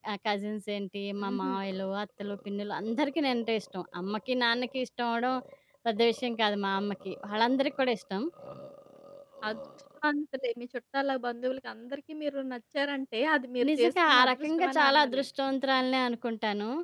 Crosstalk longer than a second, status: present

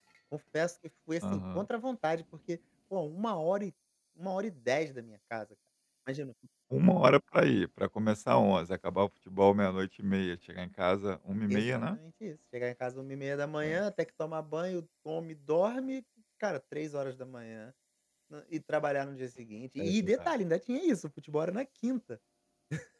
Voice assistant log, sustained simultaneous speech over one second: none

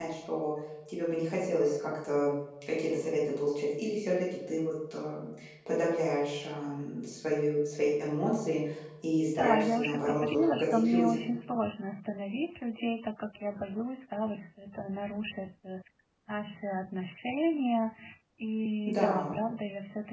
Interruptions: present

